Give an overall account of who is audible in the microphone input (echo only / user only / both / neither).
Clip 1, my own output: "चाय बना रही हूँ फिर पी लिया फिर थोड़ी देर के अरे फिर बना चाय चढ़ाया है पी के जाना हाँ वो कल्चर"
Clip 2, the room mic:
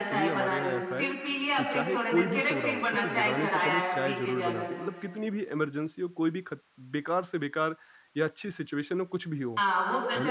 both